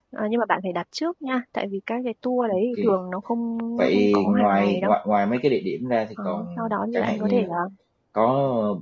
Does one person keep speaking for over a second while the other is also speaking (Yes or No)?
Yes